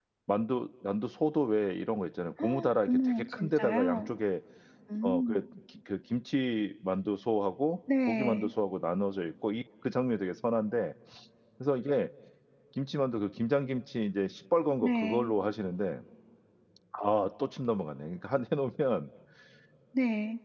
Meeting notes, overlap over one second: present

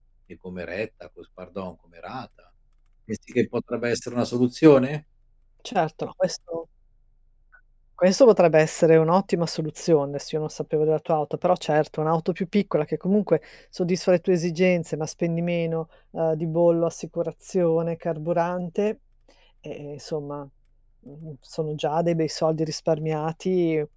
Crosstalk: none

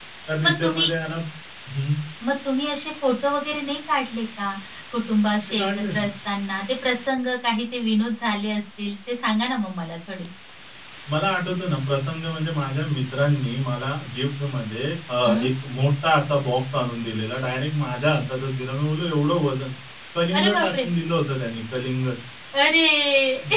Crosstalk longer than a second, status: none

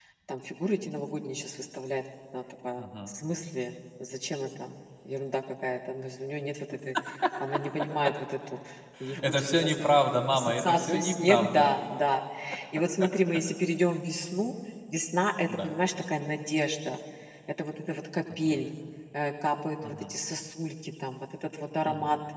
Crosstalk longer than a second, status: present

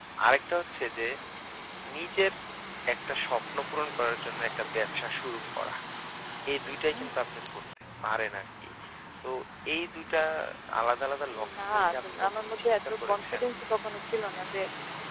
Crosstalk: present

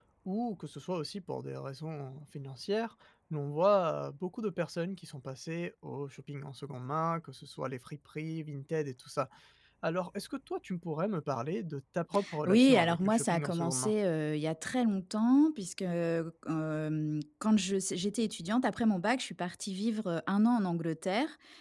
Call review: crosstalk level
present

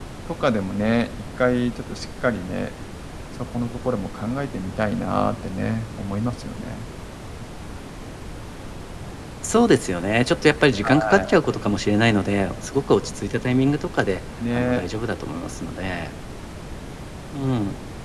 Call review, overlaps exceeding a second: none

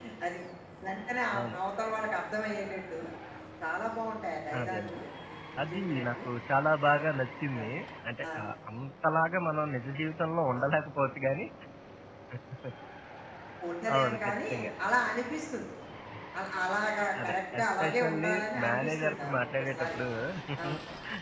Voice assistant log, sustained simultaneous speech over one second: present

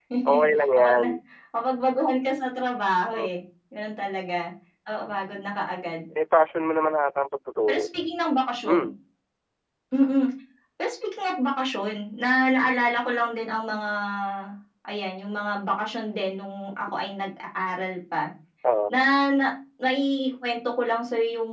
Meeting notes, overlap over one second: none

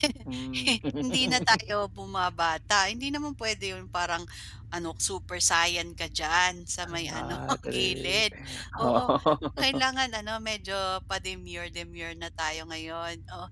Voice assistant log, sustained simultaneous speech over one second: present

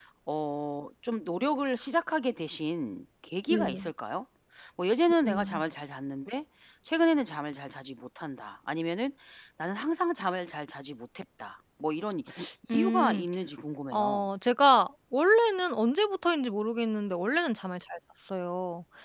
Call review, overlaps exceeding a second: none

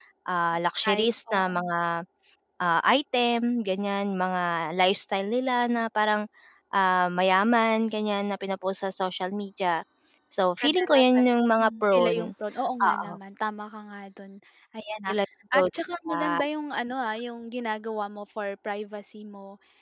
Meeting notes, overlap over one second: present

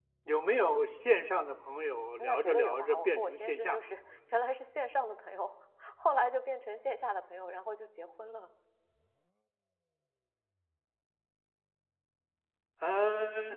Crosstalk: present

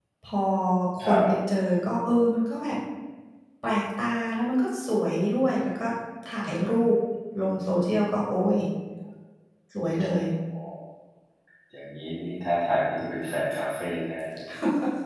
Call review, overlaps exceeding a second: none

